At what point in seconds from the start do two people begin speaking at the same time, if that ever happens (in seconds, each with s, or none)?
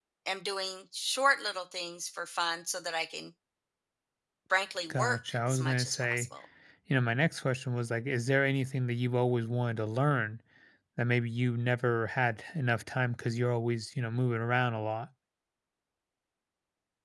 4.9 s